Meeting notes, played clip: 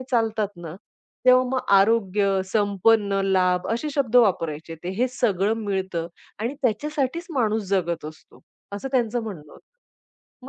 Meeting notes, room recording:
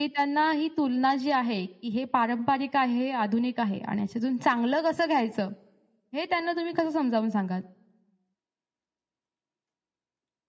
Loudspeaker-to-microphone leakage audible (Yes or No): No